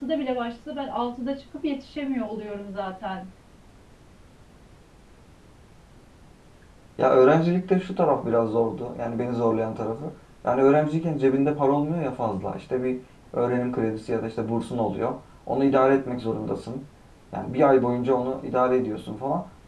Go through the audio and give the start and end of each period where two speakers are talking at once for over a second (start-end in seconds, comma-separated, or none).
none